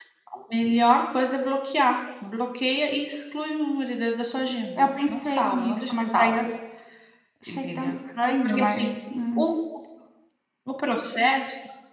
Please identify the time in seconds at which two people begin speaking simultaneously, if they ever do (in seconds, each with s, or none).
4.8 s